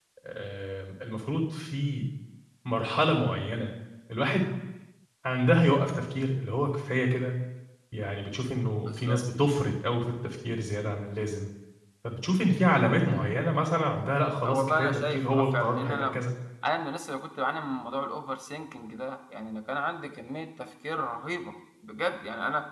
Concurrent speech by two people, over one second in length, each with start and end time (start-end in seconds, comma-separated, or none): 14.4-16.2